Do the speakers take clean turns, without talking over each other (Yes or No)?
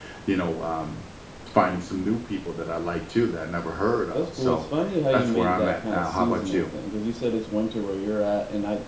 No